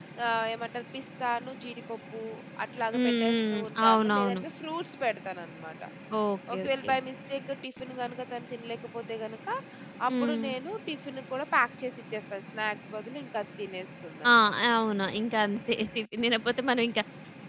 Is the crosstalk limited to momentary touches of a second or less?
No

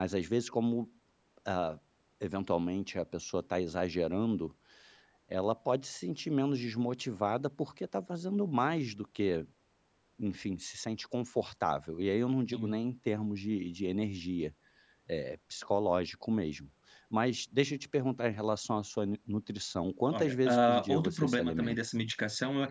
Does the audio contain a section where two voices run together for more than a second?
Yes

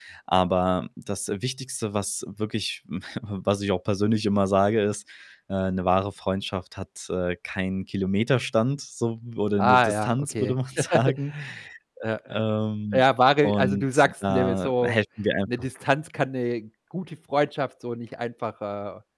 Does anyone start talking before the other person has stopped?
Yes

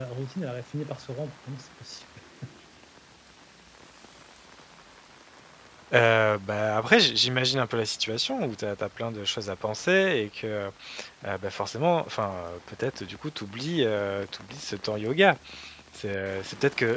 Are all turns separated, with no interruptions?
Yes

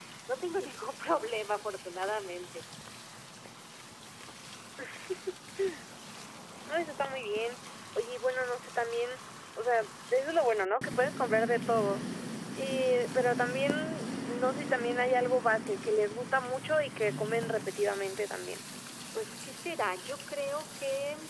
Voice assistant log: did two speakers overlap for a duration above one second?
No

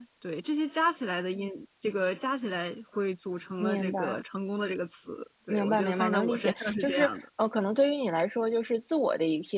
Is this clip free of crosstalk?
No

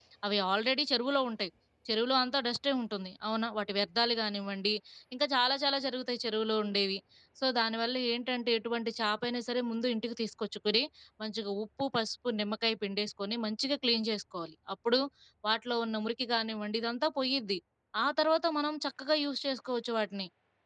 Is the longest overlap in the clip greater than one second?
No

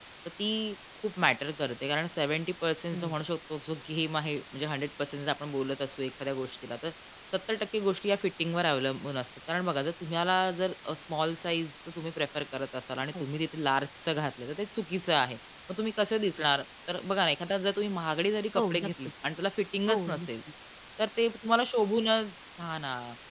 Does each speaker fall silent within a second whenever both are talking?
Yes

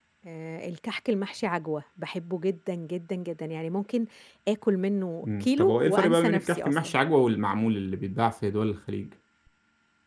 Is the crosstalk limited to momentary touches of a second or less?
No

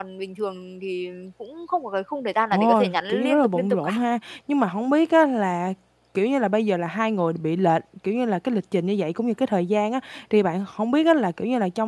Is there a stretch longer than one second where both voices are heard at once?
Yes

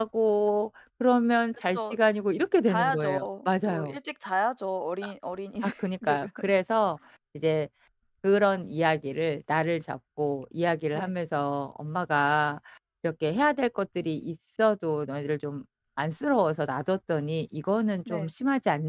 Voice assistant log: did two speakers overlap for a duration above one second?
Yes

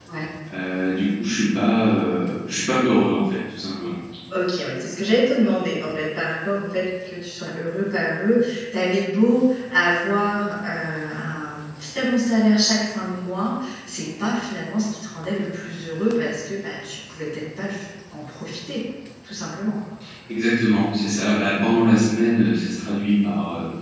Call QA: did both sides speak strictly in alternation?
Yes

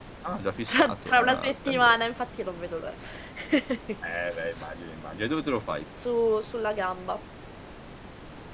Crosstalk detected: Yes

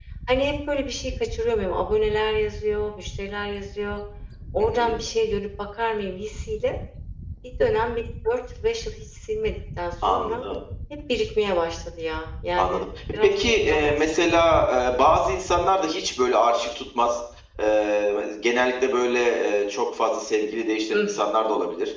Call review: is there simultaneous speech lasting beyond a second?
Yes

